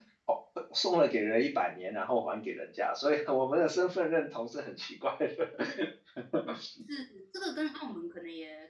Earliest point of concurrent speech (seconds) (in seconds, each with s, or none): none